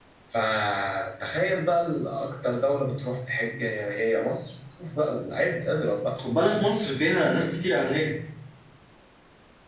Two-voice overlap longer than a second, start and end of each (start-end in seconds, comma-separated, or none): none